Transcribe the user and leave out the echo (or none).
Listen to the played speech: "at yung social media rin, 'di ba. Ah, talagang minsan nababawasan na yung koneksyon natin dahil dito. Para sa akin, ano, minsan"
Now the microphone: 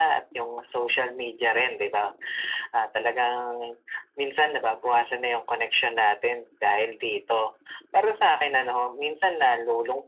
none